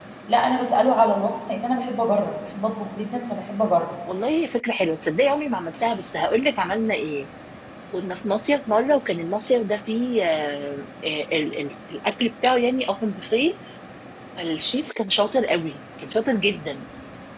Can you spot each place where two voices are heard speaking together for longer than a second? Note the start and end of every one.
none

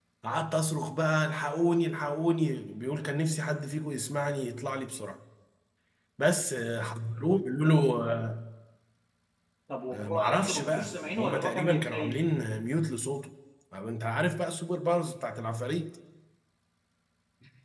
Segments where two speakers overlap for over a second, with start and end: 9.9-12.2

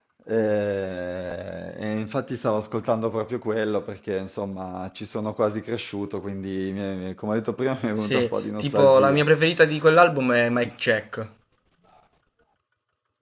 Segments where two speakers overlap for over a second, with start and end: 8.0-9.2

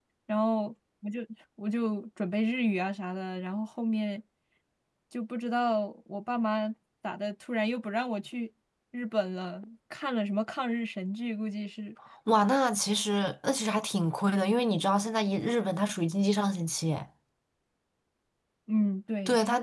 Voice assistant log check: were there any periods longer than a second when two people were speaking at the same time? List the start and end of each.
none

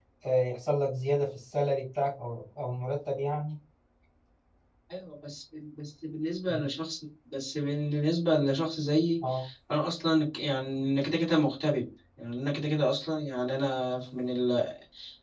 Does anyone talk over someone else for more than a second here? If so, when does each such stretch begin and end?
none

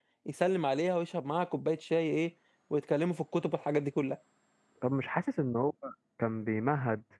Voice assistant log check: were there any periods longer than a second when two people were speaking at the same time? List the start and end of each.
none

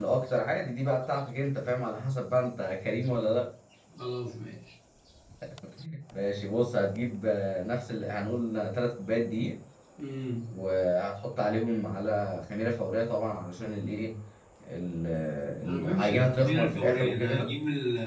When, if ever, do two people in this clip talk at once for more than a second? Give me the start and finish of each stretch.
15.7-17.5

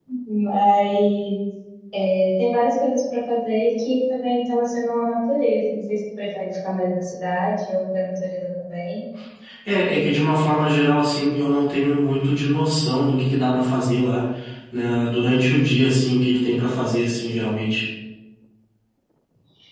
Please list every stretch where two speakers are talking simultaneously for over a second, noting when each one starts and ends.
none

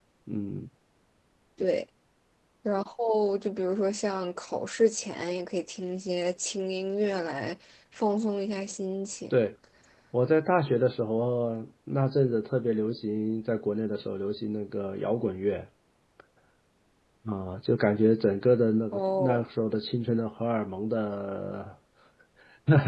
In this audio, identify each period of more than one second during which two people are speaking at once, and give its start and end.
none

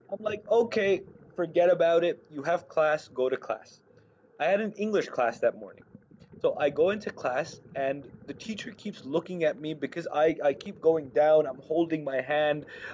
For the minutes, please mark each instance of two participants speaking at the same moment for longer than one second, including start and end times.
none

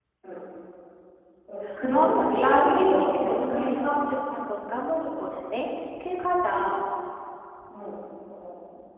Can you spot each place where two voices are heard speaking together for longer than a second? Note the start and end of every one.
1.9-3.9

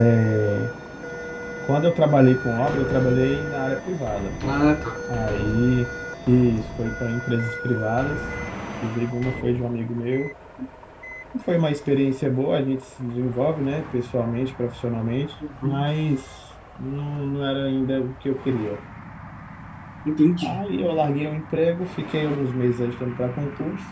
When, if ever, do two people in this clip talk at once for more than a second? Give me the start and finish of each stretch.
none

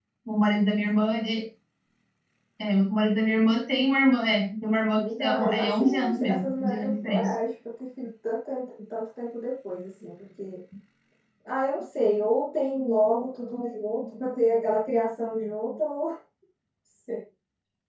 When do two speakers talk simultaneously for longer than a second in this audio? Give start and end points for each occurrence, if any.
5.0-7.4

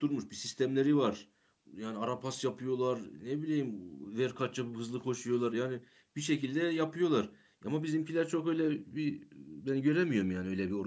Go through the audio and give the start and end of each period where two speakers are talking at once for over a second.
none

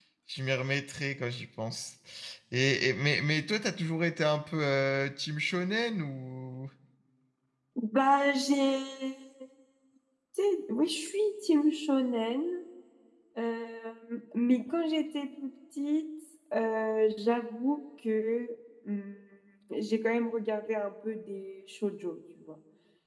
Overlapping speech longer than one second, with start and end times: none

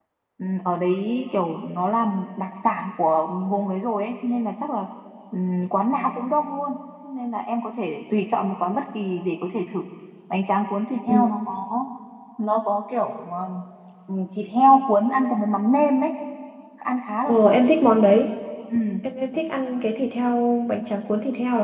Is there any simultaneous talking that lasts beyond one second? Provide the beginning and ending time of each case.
none

